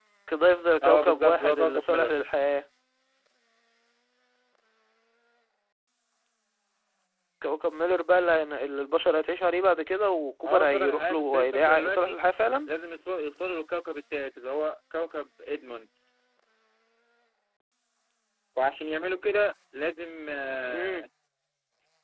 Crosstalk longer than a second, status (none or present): present